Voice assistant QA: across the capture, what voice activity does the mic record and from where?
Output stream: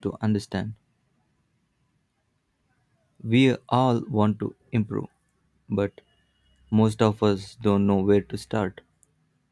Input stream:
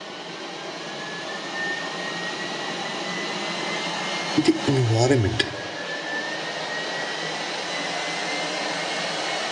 user only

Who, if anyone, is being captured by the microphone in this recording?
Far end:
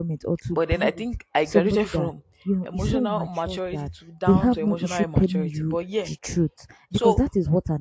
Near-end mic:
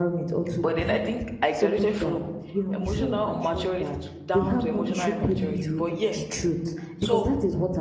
echo only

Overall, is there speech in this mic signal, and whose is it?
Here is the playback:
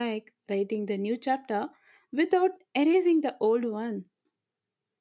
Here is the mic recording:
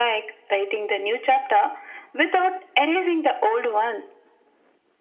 echo only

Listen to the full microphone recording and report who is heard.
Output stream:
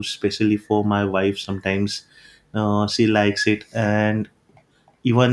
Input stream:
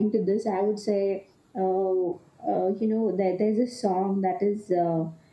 user only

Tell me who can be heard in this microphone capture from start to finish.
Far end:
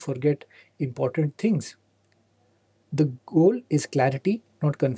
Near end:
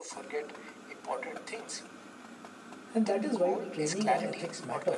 both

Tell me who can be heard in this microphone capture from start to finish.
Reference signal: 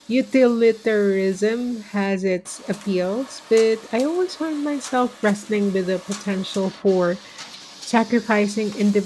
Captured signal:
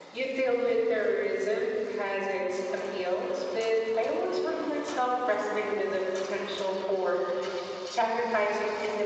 echo only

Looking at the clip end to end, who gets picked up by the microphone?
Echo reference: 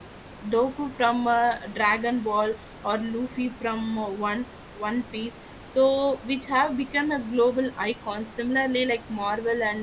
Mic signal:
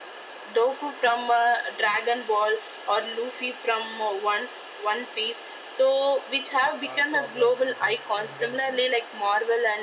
both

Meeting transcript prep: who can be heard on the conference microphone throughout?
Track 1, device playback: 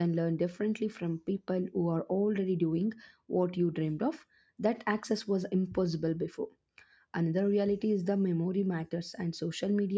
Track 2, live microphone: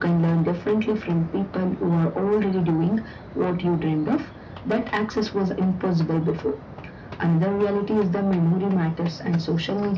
echo only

